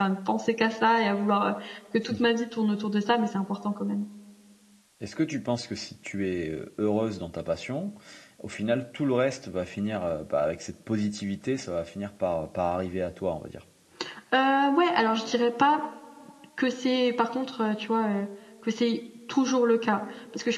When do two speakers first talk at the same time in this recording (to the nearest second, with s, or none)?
none